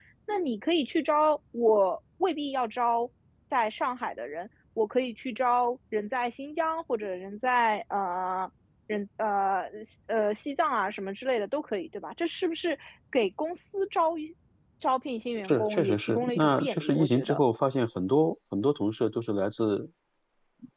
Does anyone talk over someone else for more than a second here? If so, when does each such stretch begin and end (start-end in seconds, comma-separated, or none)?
15.4-17.4